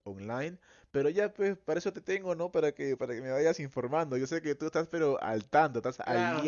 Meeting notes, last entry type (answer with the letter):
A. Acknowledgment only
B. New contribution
B